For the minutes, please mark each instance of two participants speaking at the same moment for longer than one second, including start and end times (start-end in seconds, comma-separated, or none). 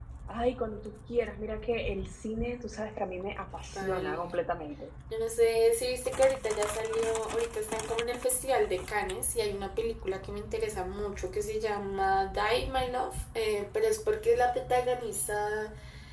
none